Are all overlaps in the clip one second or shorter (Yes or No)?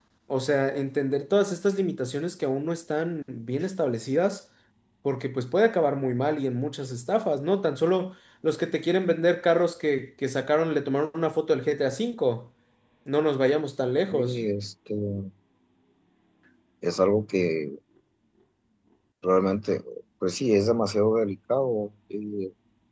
Yes